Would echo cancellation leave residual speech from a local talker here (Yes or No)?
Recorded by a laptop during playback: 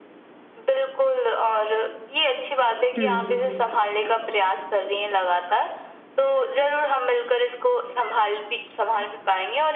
Yes